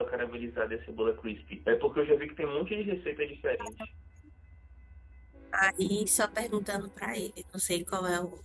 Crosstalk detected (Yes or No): No